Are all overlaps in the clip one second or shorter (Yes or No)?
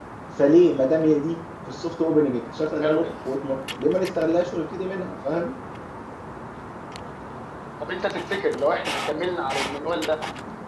Yes